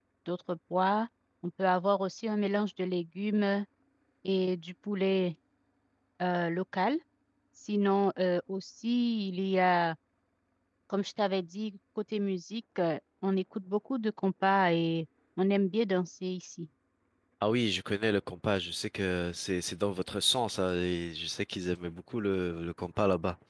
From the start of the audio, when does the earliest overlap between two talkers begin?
none

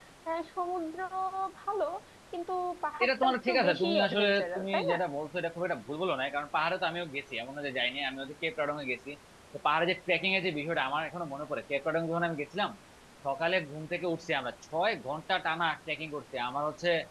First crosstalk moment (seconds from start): 3.0 s

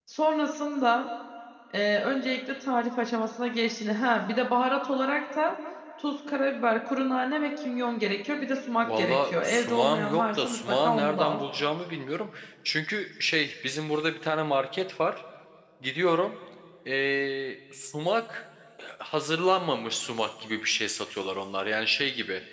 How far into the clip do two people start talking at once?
8.8 s

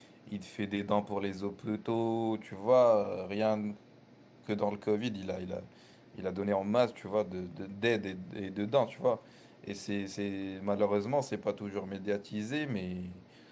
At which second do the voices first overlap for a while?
none

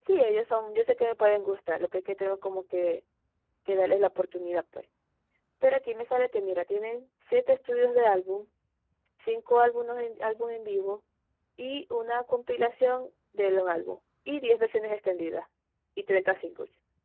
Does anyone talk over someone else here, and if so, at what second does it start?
none

